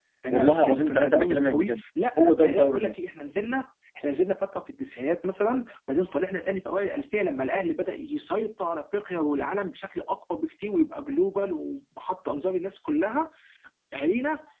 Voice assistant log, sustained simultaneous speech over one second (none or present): present